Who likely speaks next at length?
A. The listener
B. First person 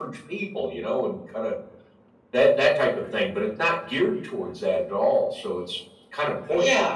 A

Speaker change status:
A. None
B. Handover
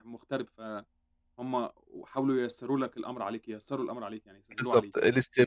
B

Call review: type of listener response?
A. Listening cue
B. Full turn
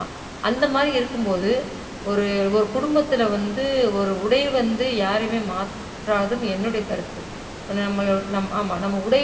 A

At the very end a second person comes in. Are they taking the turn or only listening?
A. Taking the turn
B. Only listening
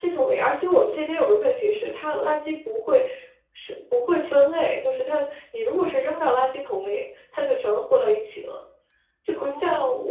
B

